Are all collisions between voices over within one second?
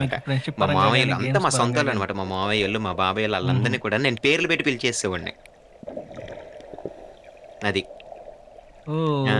No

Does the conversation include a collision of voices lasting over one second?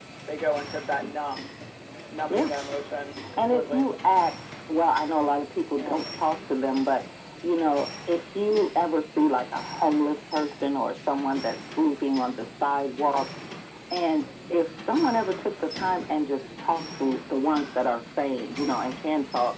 No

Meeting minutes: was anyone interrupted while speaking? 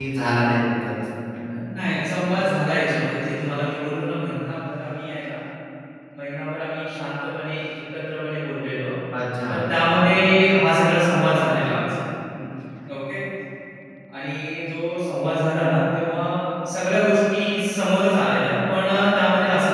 No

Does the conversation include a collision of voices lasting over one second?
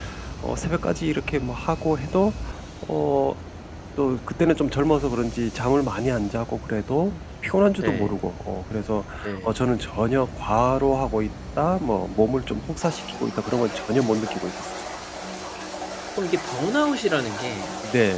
No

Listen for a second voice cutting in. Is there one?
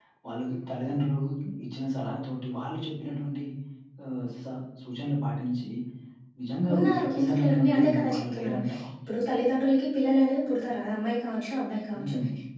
Yes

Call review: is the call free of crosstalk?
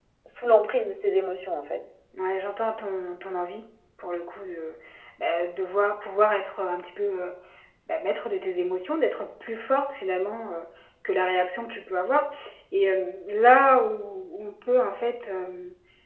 Yes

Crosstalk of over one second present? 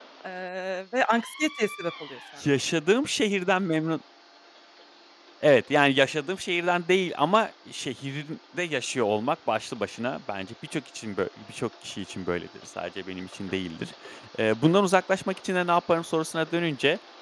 No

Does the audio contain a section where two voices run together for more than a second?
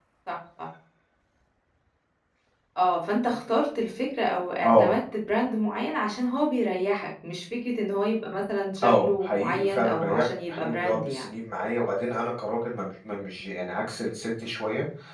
Yes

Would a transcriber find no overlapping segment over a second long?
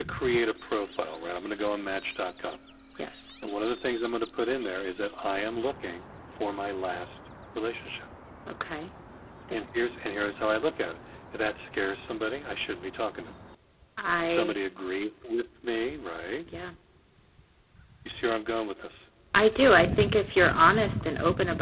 Yes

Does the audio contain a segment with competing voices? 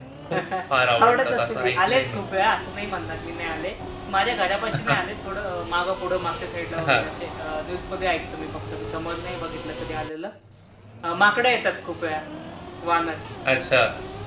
Yes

